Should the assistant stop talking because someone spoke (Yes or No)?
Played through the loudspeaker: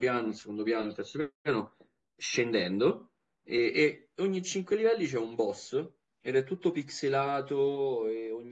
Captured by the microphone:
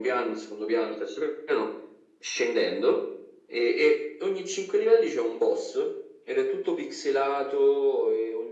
No